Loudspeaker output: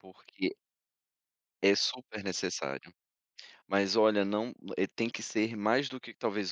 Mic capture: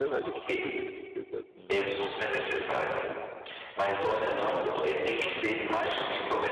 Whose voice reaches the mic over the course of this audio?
both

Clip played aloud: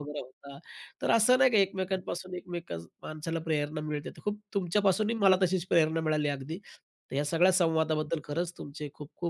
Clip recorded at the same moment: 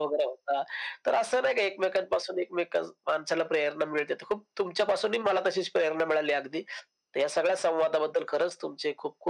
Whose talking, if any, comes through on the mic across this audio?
echo only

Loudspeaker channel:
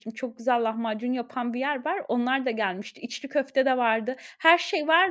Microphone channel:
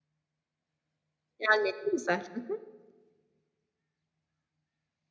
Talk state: user only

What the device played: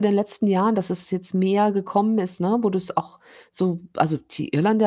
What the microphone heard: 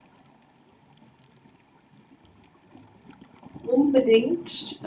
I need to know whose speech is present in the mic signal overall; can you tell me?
user only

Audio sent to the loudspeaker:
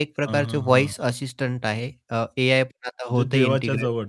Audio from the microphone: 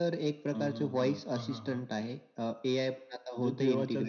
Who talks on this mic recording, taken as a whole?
both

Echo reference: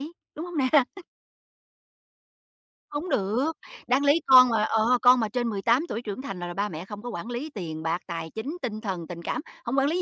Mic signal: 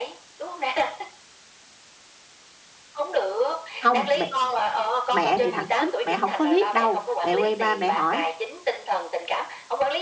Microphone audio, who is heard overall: both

